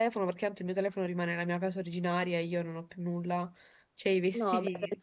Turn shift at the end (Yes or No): Yes